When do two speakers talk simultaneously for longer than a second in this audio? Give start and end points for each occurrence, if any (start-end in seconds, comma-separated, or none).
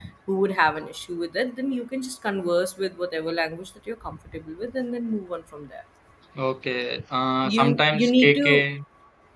7.4-8.6